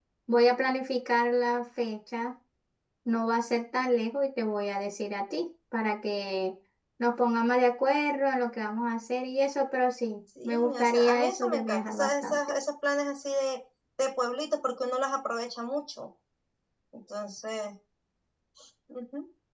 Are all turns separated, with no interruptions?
No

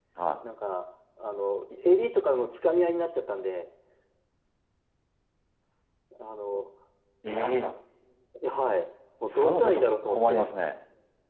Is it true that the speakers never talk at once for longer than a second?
No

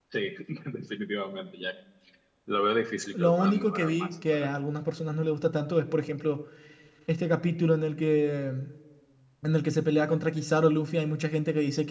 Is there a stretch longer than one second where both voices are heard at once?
Yes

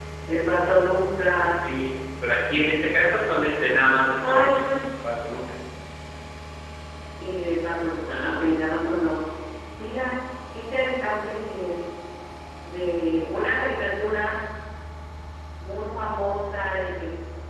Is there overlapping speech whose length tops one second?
No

